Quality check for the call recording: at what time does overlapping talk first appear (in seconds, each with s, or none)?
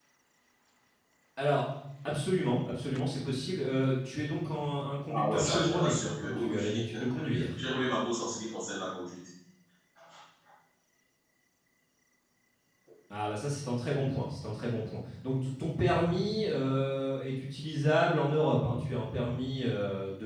5.1 s